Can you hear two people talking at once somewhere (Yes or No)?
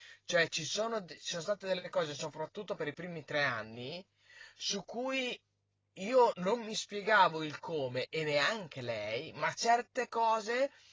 No